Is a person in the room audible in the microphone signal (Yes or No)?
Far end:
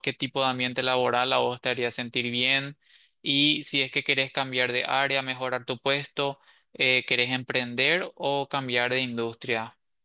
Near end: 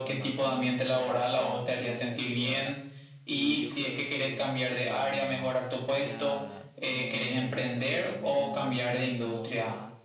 Yes